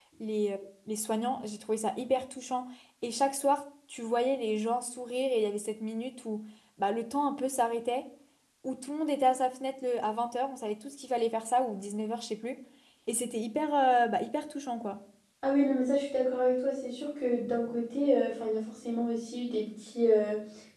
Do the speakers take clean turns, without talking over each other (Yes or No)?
Yes